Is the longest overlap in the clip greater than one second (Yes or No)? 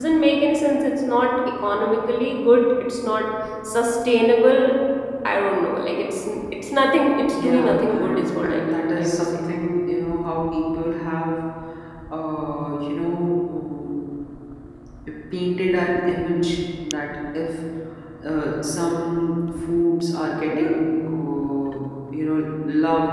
Yes